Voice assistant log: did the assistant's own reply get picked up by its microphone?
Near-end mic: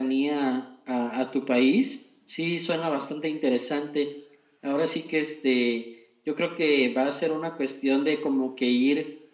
Yes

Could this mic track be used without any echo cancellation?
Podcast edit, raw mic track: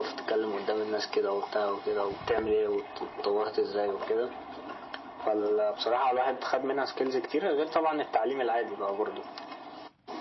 No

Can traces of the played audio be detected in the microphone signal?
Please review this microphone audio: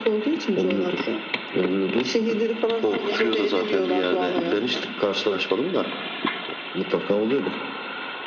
Yes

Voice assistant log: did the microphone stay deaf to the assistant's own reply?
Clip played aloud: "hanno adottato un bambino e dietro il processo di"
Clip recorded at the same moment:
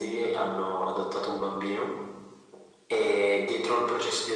No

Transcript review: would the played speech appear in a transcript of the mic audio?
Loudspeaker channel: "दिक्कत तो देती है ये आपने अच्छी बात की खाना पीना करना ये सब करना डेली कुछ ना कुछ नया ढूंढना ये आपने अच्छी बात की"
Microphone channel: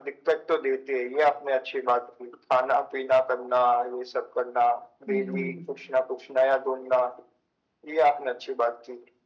Yes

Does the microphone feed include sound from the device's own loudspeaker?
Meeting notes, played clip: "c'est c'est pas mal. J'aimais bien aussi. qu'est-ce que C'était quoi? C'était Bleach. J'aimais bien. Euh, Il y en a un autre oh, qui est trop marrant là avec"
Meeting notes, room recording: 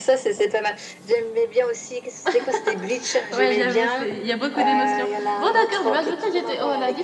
Yes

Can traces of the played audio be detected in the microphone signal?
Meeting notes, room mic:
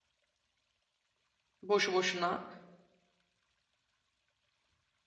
No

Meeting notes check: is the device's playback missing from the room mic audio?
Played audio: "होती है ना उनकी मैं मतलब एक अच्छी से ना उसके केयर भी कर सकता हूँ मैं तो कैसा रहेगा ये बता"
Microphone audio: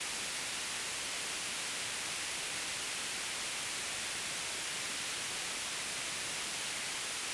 Yes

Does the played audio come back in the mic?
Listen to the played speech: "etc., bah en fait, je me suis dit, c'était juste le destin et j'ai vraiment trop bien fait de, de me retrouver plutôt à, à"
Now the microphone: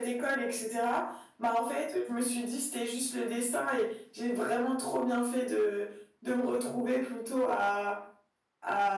Yes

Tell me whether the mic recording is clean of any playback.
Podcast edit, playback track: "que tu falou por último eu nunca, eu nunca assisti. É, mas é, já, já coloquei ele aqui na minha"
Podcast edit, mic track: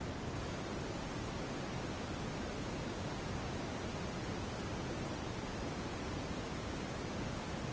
Yes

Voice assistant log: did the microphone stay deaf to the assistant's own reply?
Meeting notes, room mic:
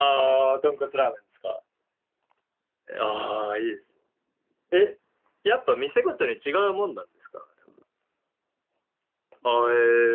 Yes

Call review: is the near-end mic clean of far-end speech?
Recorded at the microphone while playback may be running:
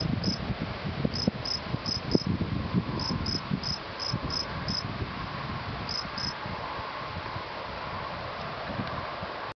Yes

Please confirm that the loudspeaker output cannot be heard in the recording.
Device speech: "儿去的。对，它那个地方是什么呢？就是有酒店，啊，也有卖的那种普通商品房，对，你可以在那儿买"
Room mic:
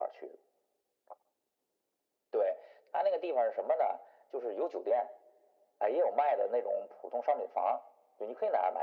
No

